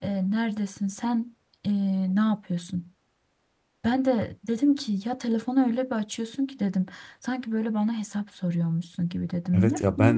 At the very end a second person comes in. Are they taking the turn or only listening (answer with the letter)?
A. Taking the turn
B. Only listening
A